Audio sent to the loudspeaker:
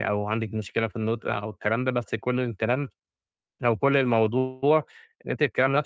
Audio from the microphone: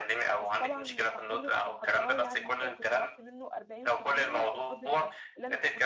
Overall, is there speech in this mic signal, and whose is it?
both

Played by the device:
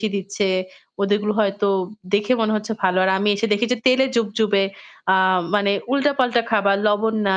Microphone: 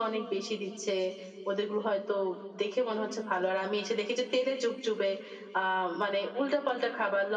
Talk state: echo only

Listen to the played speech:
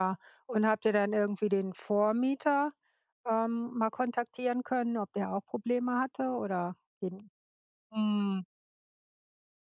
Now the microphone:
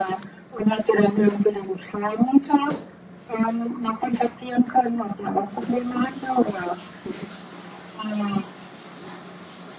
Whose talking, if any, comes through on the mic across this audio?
echo only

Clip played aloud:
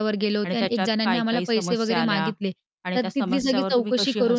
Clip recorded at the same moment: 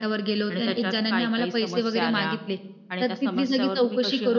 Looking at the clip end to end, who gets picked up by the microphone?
echo only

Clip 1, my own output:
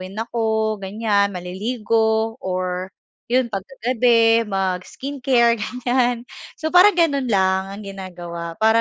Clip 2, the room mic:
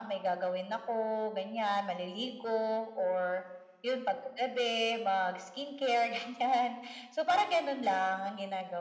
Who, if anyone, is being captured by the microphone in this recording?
echo only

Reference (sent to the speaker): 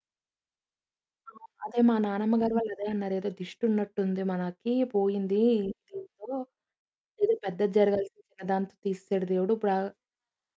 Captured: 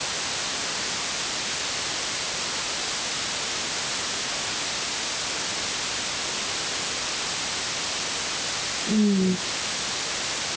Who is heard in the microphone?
user only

